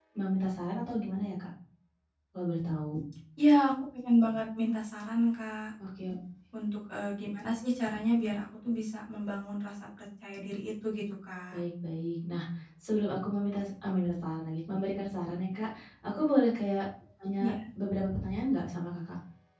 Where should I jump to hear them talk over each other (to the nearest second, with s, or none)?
none